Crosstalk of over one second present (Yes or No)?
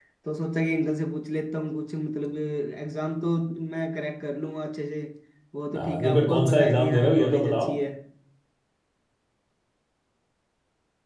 Yes